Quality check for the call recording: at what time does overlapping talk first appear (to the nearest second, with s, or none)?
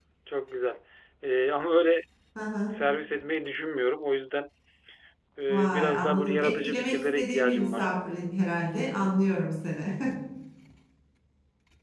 5 s